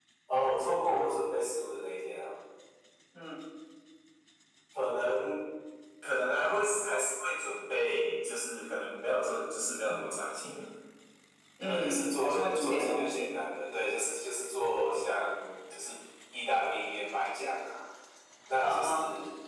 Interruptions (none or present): present